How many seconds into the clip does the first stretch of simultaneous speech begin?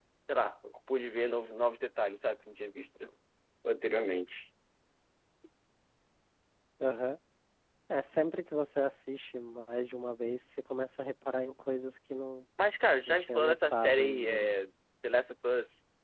13.1 s

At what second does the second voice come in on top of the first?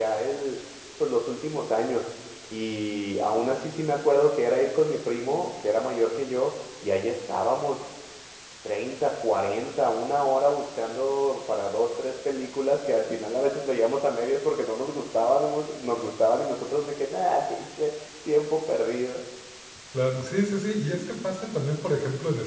none

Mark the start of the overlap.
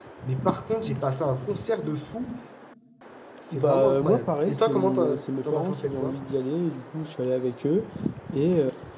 3.5 s

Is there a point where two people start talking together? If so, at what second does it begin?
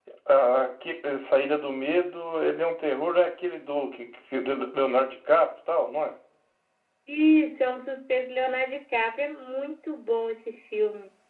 none

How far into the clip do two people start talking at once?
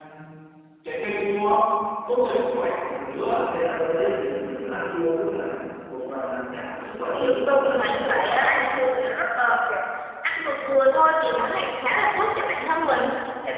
7.2 s

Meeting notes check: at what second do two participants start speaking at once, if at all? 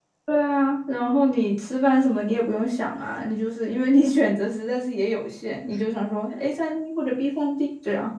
none

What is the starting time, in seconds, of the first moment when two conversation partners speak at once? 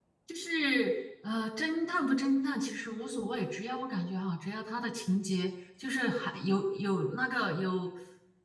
none

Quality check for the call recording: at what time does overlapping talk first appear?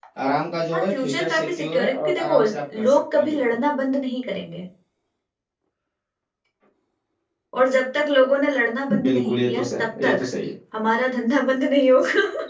0.7 s

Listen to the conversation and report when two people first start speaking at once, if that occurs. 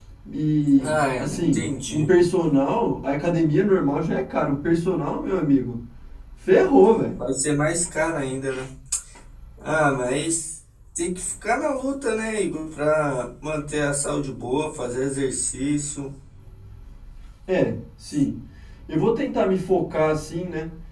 0.8 s

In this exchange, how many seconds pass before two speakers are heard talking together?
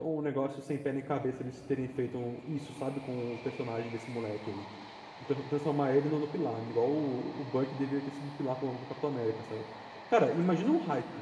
none

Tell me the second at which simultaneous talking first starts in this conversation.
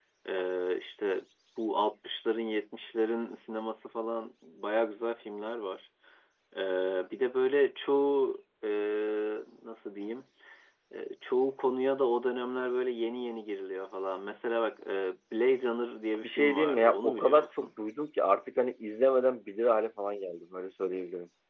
16.2 s

